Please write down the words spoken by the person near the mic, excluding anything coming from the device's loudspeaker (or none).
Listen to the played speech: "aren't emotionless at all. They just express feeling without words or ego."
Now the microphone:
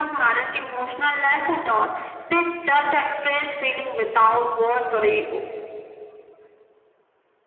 none